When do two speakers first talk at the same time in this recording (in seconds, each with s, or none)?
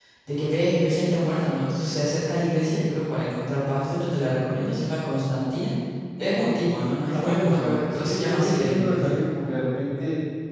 7.1 s